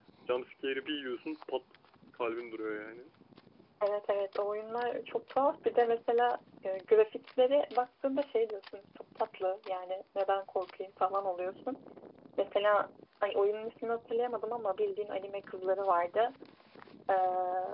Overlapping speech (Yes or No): No